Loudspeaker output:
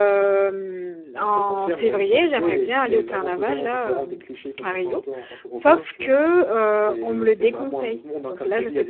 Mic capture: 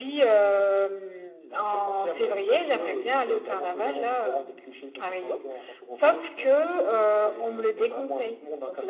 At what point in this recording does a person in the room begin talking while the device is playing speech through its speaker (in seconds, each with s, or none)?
none